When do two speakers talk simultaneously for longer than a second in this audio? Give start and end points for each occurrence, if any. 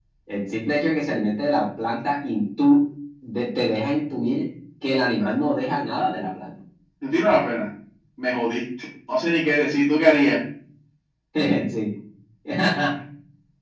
none

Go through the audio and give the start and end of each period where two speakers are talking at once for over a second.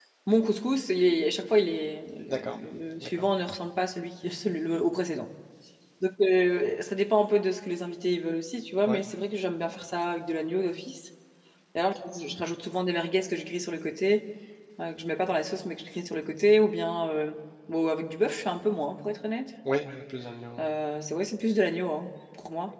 none

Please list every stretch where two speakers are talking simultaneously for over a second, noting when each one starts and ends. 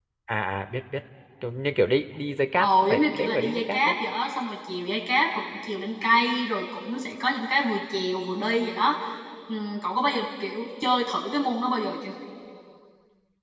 2.6-4.0

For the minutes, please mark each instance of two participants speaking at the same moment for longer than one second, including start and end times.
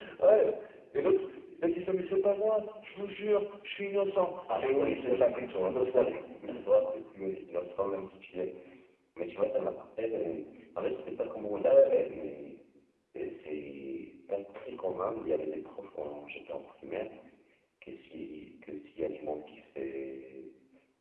4.5-6.1

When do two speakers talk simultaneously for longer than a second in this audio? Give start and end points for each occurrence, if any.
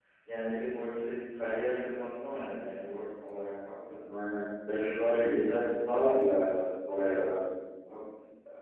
none

